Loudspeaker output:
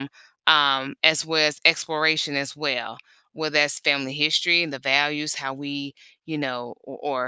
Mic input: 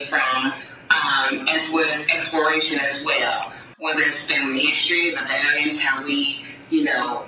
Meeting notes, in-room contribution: none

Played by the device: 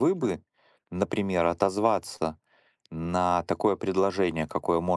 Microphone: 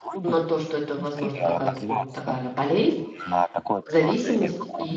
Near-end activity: present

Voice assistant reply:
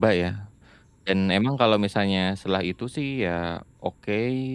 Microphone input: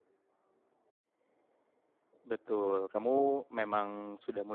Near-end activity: present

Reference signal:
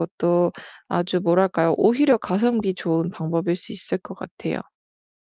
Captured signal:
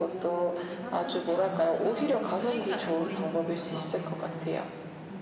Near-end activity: present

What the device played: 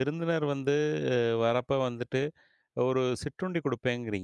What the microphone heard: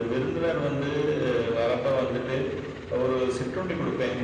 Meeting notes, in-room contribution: none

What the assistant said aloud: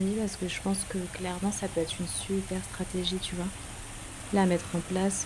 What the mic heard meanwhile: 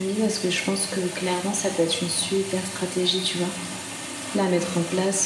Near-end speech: none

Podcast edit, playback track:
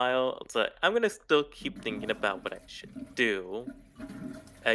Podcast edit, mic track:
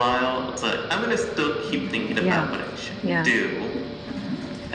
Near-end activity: present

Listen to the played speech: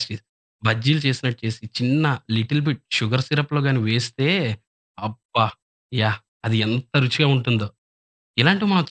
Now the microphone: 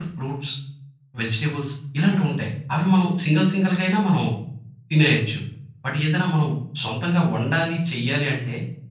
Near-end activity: present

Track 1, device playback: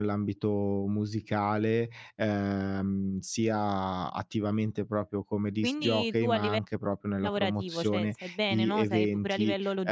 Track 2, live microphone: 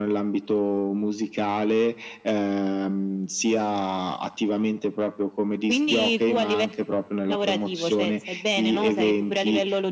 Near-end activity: none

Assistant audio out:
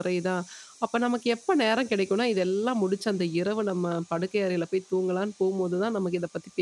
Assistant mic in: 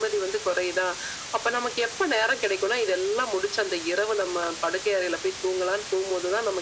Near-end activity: none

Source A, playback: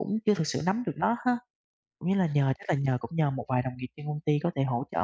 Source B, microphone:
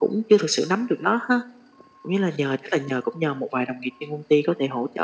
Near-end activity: none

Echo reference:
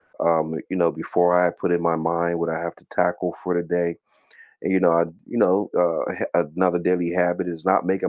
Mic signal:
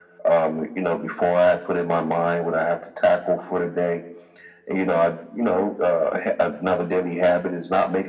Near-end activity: none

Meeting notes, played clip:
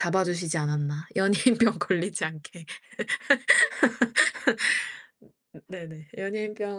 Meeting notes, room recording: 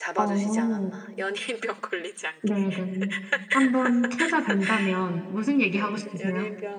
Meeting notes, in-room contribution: present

